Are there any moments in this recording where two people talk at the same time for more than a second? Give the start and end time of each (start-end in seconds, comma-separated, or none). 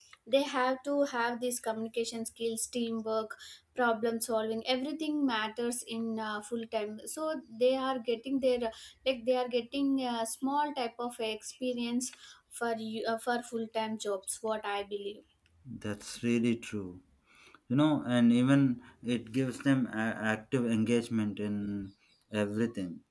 none